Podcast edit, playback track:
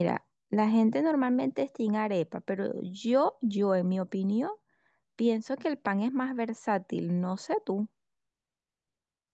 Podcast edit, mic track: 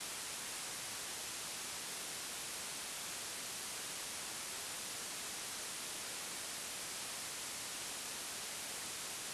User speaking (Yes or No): No